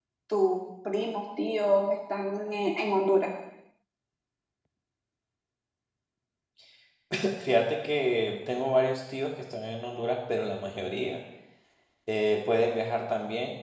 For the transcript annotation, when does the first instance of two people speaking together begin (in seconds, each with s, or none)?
none